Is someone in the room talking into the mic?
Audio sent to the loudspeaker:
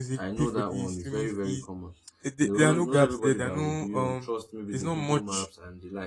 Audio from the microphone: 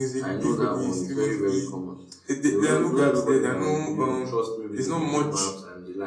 No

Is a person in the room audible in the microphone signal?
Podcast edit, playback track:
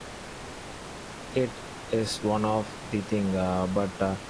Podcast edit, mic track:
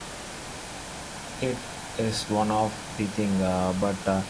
No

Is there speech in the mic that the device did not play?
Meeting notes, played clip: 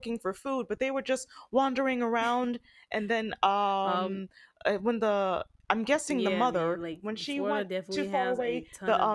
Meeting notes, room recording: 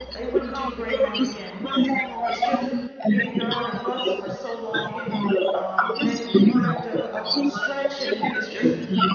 Yes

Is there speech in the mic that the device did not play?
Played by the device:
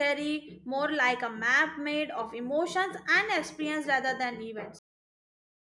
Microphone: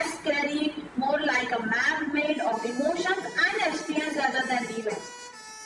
No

